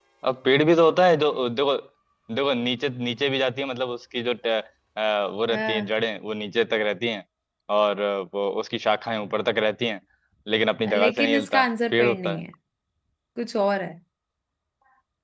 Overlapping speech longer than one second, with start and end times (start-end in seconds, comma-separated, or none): 10.9-12.4